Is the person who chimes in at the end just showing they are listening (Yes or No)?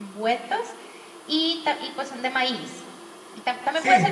Yes